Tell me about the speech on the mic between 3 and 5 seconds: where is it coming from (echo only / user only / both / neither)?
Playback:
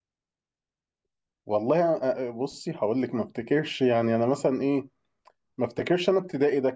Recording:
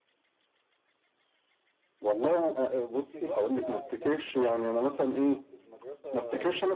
both